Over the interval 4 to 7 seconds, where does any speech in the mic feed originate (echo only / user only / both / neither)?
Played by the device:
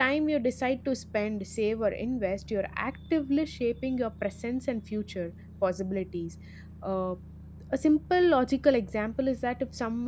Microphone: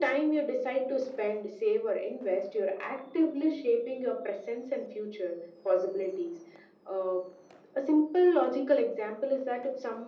echo only